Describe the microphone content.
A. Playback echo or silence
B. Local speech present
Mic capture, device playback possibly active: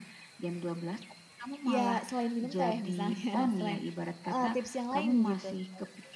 B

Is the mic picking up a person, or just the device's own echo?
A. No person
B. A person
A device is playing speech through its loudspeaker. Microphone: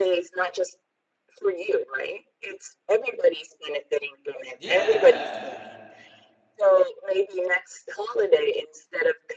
B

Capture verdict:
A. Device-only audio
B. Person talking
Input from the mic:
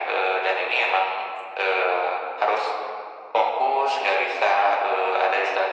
A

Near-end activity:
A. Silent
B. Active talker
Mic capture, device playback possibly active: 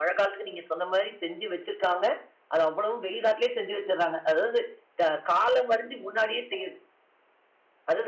A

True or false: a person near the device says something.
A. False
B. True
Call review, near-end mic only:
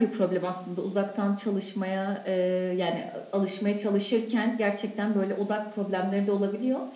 A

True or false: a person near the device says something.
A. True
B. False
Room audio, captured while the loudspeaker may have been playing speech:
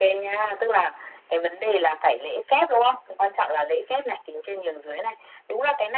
B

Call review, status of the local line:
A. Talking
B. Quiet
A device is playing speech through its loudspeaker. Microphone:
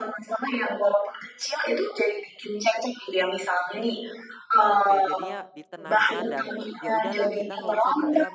A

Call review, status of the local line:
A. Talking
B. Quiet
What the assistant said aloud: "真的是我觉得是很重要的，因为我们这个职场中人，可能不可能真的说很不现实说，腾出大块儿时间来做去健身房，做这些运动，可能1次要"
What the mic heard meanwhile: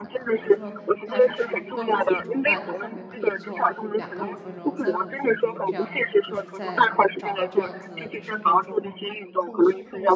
A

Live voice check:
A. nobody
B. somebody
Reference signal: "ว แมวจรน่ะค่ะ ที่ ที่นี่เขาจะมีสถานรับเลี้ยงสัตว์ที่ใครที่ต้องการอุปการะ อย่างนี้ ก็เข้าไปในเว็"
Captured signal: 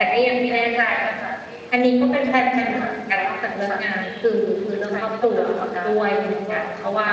B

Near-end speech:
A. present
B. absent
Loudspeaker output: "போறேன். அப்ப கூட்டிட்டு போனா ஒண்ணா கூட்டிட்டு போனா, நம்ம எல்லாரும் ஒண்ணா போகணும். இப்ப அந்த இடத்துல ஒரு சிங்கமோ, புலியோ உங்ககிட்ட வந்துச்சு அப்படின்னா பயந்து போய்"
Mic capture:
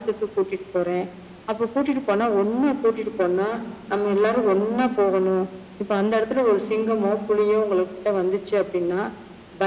B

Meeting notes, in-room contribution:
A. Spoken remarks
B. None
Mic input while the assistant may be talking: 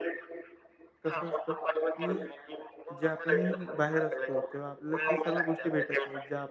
A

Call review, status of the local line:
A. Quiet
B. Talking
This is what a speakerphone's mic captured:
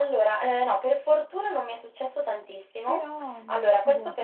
B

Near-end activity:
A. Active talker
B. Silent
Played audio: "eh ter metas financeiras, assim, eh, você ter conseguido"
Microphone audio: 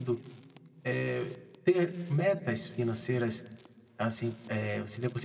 B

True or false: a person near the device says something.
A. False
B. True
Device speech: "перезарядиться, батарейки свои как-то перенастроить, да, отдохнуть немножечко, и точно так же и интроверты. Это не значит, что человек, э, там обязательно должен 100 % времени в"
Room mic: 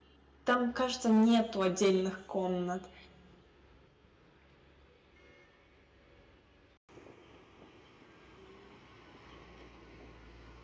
B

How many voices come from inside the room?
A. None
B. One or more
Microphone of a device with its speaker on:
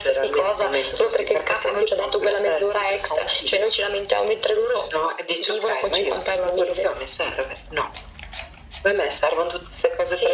A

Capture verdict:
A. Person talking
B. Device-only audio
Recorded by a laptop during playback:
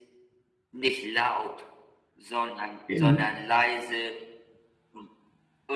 A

